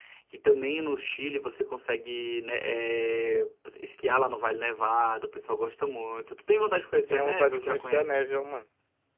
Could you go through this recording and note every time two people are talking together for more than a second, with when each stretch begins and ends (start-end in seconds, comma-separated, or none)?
7.1-8.4